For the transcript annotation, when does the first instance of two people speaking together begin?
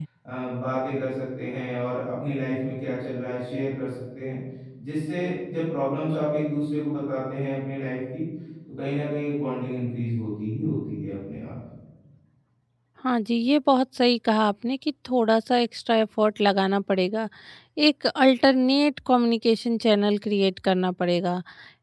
none

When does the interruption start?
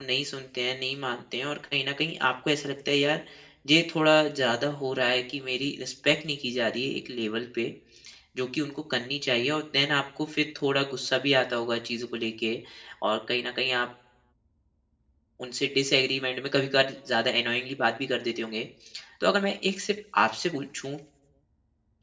none

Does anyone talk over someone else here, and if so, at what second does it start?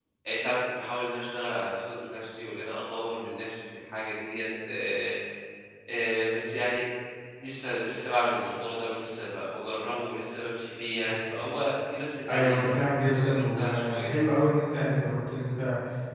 12.3 s

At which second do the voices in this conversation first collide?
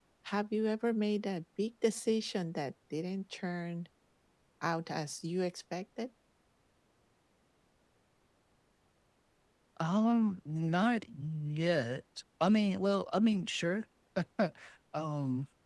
none

